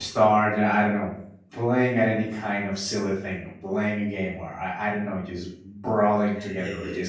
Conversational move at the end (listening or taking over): taking over